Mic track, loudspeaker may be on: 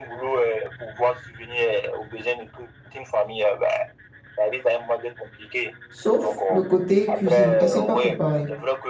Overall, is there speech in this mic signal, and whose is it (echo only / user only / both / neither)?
both